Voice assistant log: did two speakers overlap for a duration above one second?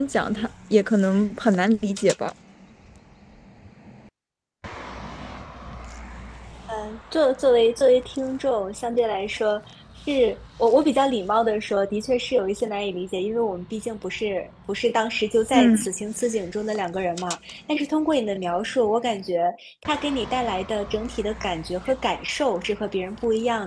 No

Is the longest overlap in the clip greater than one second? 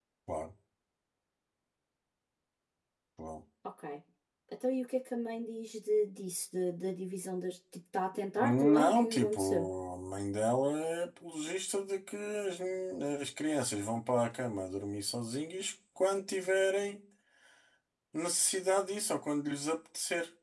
Yes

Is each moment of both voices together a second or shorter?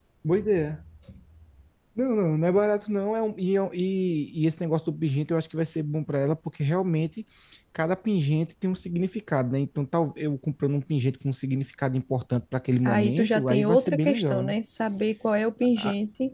No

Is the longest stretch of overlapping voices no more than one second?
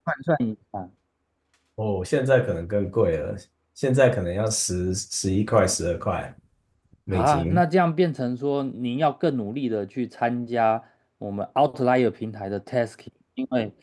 Yes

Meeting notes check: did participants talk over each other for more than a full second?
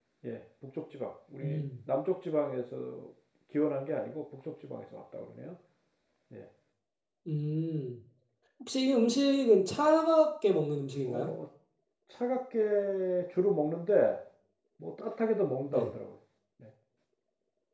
No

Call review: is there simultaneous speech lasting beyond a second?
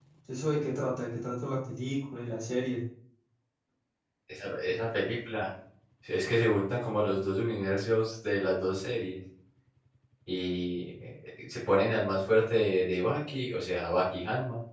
No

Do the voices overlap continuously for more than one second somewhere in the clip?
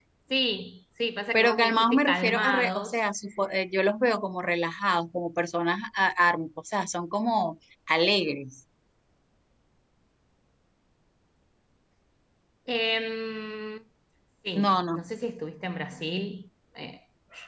Yes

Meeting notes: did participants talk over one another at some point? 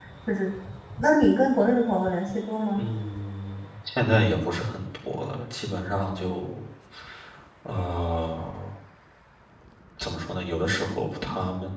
No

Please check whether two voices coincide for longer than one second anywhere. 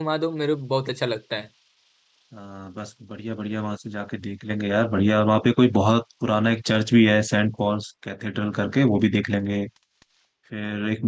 No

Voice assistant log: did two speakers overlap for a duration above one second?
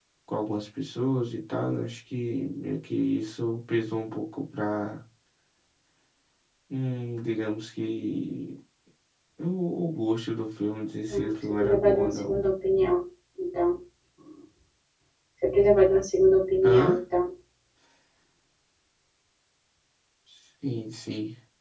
Yes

